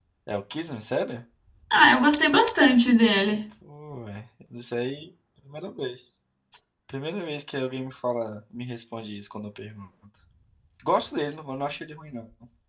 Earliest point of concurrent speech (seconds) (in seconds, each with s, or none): none